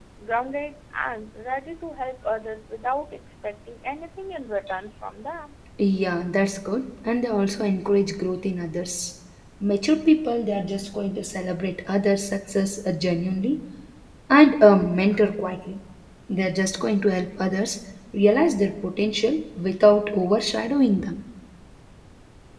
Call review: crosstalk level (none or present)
none